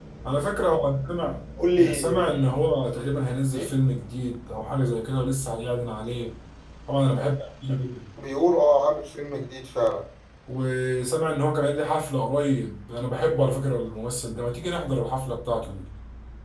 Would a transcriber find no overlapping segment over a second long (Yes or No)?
Yes